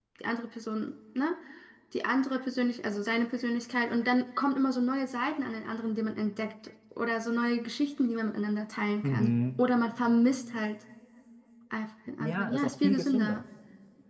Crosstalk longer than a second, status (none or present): present